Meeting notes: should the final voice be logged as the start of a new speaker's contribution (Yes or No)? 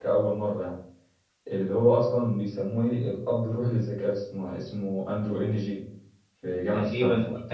Yes